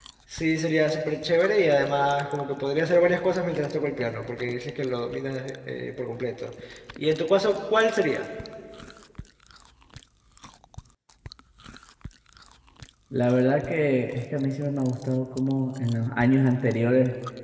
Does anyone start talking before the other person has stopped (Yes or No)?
No